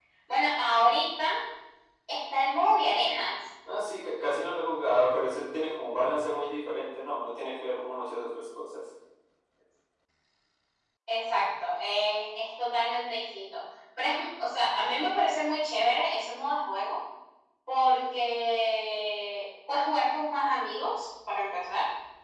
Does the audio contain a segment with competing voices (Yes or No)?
No